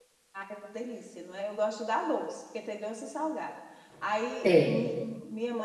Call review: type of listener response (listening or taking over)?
listening